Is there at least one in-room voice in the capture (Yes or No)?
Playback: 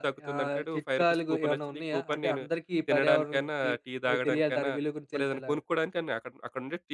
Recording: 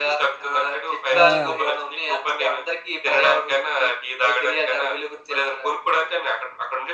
Yes